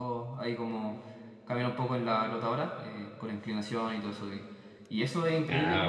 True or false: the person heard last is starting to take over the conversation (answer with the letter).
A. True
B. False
B